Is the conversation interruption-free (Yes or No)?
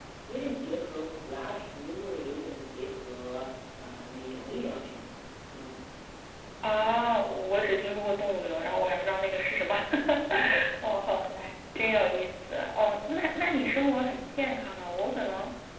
Yes